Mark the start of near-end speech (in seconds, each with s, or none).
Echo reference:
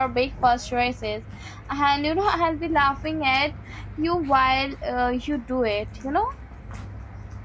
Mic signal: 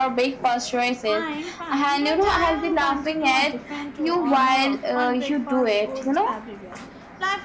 1.1 s